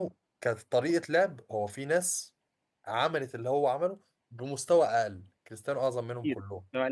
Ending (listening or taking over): taking over